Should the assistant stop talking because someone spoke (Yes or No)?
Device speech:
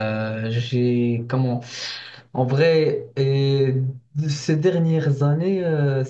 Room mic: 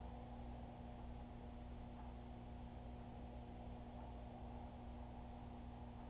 No